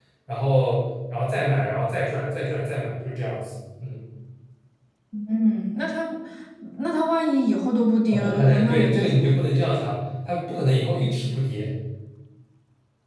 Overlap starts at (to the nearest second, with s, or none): 8 s